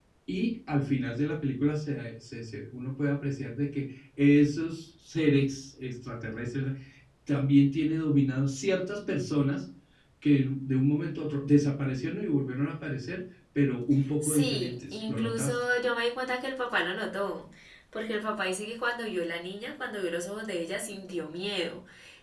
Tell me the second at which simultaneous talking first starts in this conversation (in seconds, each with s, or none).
14.2 s